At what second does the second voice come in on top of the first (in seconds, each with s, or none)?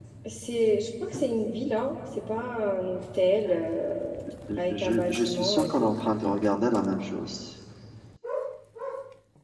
4.7 s